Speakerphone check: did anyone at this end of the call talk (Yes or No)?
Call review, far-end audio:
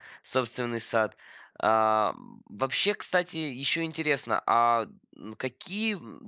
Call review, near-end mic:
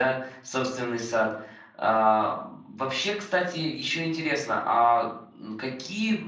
No